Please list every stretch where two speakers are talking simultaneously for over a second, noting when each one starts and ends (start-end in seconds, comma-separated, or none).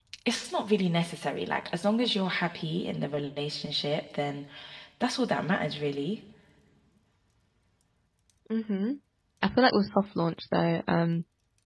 none